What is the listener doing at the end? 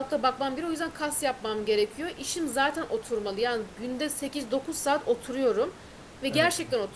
listening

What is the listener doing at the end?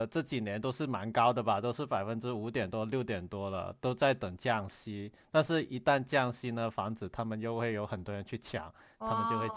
taking over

